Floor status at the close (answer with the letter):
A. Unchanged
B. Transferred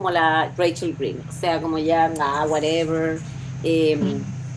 A